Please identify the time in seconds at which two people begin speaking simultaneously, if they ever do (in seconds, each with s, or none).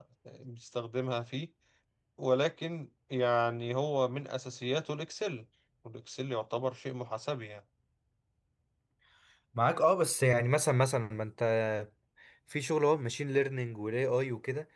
none